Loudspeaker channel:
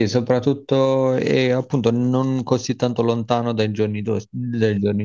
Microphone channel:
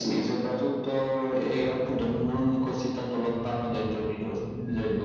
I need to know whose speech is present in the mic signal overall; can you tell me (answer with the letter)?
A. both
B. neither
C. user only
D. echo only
D